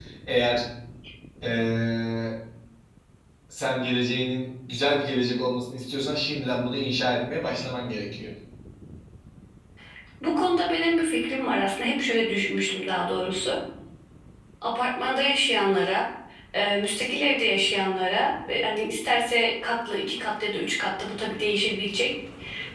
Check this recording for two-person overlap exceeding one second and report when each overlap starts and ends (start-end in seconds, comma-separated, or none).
none